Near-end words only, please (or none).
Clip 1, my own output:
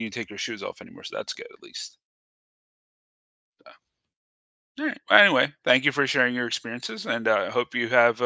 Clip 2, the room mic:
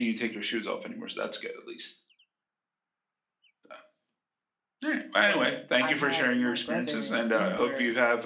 was I had my brother Uber